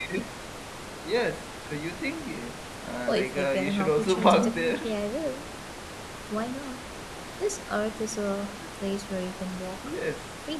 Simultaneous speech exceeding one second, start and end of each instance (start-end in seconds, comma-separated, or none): 3.0-4.9